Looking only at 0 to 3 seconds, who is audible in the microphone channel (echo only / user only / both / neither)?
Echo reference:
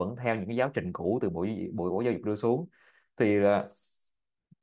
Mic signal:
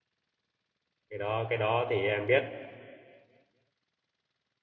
user only